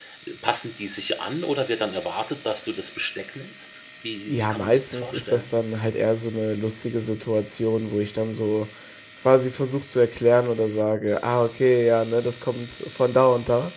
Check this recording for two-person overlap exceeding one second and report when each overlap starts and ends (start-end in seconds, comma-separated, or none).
4.3-5.5